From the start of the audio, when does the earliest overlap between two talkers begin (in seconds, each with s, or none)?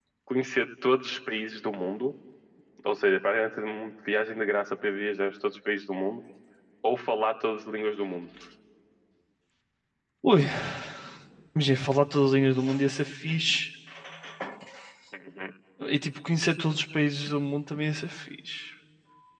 none